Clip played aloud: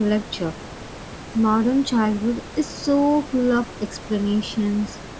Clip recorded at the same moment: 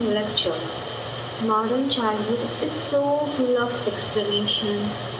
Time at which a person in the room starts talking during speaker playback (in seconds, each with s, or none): none